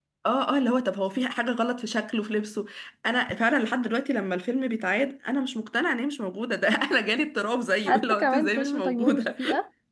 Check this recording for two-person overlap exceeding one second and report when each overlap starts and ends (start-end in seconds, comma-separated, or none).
7.8-9.3